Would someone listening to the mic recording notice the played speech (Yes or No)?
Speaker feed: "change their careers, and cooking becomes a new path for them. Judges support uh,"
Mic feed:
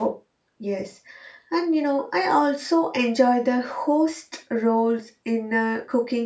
No